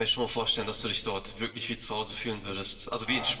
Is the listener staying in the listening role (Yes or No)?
No